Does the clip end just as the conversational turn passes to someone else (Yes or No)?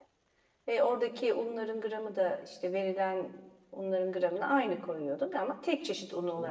Yes